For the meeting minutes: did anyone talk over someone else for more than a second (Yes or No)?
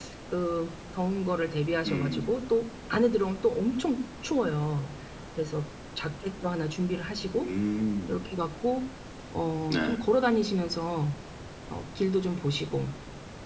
No